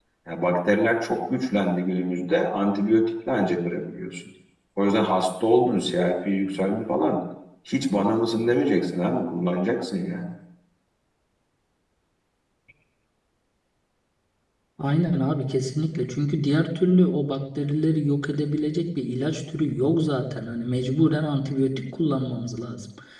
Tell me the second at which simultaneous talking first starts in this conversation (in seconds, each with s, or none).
none